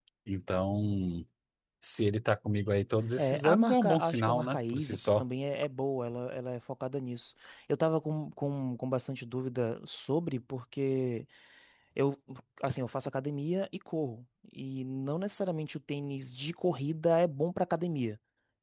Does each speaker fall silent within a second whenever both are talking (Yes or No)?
No